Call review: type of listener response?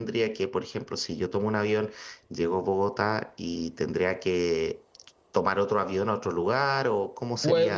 taking over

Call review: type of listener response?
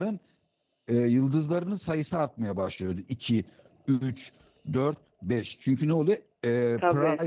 listening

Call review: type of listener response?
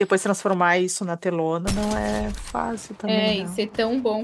taking over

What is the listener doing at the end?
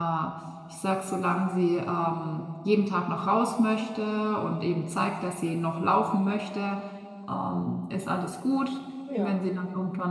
listening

